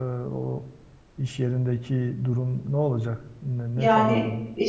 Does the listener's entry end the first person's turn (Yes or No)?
Yes